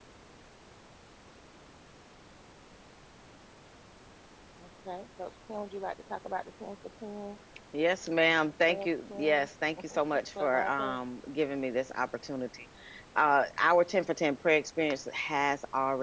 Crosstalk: present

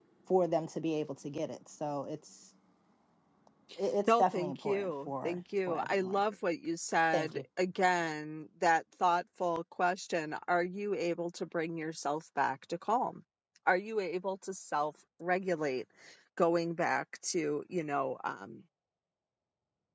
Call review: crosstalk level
present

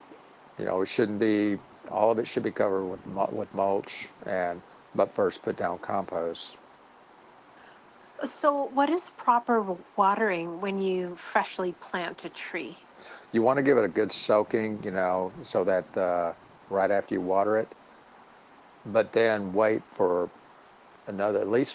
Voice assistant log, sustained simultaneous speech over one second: none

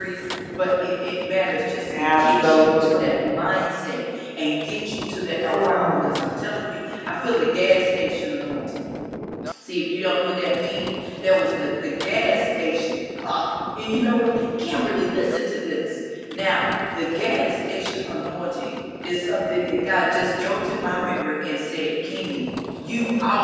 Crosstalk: present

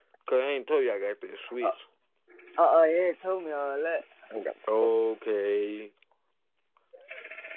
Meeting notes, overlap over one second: none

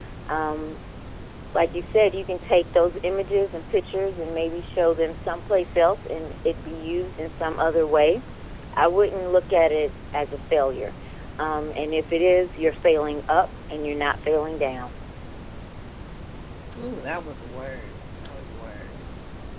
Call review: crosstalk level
none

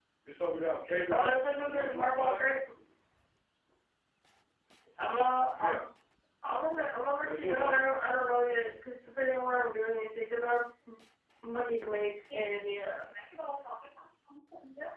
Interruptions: present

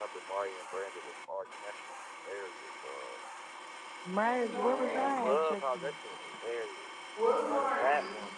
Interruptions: present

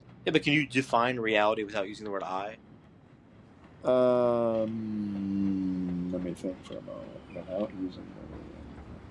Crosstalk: none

